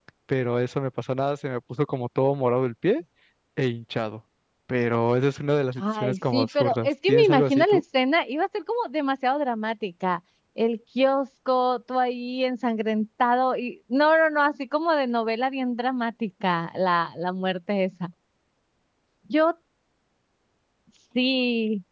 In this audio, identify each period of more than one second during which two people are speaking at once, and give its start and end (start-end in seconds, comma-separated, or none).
5.8-7.8